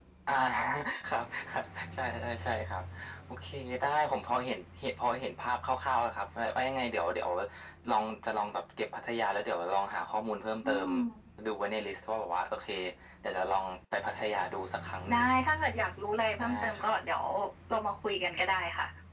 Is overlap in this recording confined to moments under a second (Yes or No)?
Yes